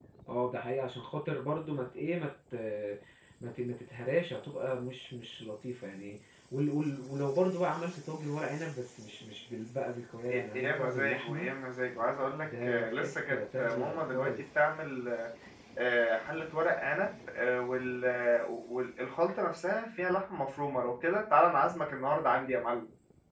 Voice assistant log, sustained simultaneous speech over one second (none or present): present